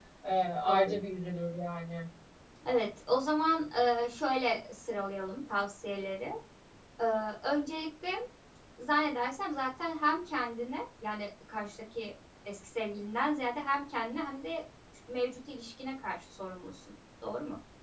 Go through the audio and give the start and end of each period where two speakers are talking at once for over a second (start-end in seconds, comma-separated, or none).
none